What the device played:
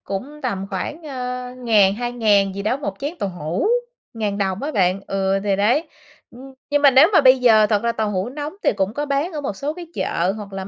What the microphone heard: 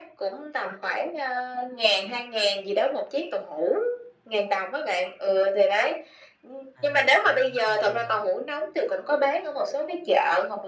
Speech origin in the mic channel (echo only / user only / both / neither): both